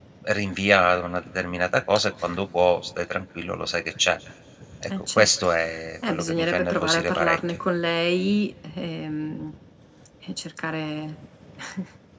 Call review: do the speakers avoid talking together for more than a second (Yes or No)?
No